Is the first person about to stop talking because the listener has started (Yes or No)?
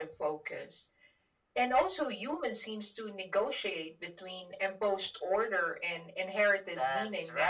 Yes